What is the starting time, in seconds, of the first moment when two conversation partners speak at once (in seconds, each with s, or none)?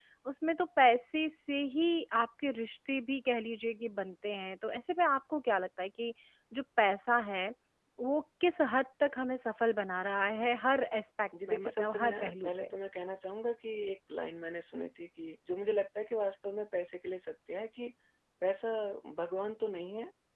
11.3 s